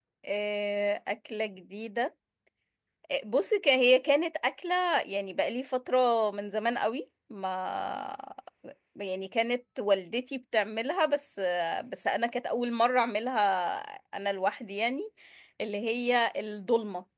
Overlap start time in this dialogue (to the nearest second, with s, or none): none